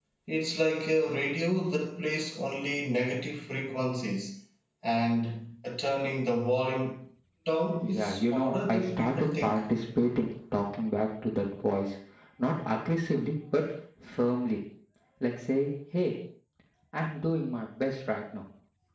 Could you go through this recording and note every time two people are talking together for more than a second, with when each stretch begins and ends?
7.8-9.6

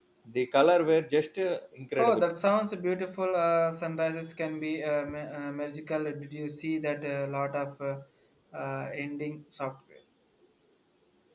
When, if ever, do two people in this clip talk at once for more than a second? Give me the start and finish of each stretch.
none

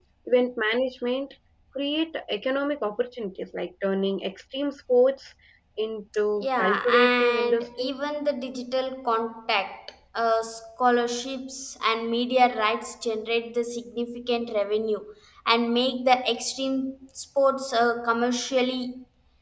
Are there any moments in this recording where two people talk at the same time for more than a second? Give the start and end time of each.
6.4-7.9

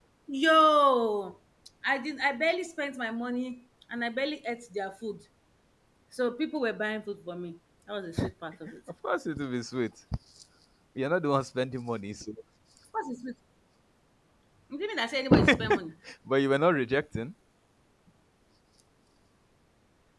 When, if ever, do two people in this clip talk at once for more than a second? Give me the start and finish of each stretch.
none

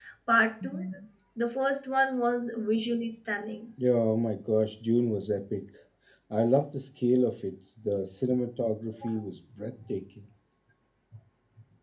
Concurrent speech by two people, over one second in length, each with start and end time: none

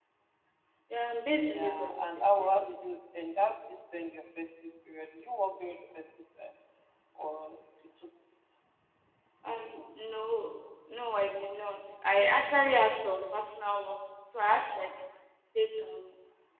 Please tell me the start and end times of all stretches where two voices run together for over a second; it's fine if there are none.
1.4-2.6

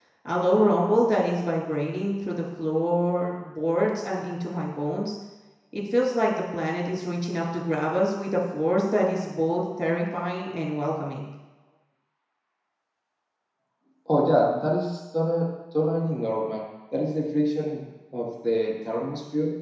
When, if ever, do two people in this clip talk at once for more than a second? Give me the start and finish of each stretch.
none

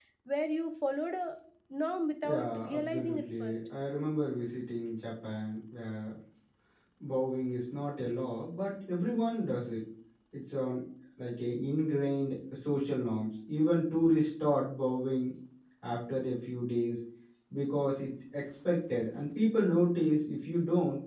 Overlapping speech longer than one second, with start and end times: 2.2-3.5

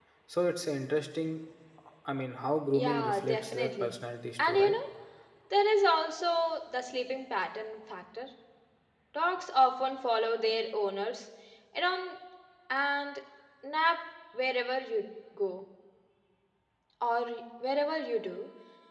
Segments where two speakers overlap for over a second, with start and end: 2.7-3.9

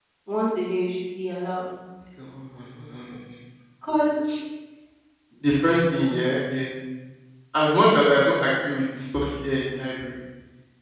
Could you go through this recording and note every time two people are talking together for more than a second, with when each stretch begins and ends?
none

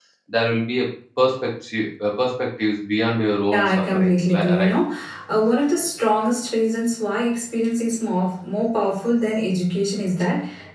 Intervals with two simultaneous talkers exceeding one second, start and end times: 3.5-4.7

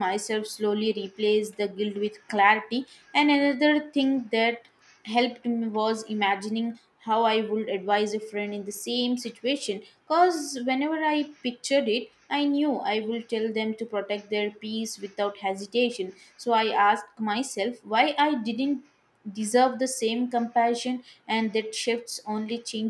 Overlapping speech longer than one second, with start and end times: none

